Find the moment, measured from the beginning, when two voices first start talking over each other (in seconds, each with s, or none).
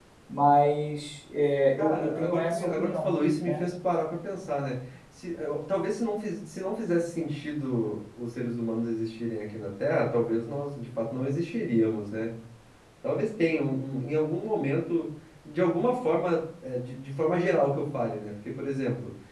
1.8 s